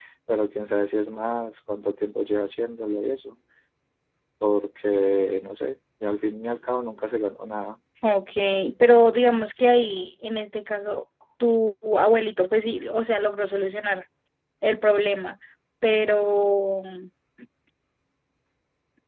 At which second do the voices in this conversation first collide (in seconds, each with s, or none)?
none